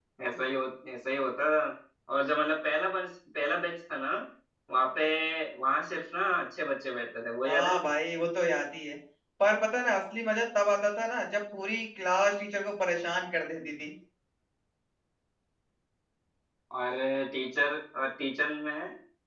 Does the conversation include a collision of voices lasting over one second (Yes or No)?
No